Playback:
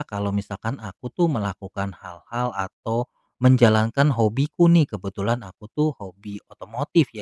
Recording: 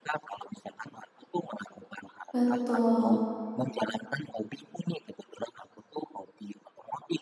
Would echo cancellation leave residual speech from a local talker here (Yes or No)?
Yes